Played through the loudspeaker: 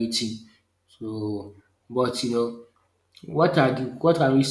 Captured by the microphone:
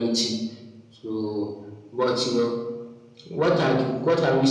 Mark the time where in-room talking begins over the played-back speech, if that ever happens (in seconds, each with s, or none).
none